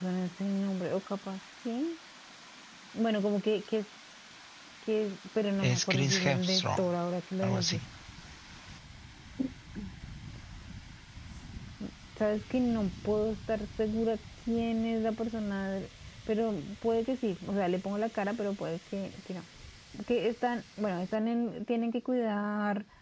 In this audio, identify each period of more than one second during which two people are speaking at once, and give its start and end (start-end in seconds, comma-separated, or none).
5.6-6.9